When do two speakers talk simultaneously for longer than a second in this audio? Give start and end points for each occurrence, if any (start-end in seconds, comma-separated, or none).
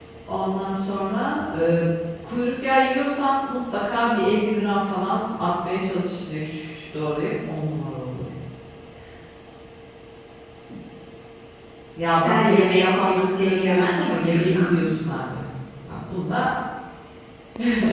12.2-14.9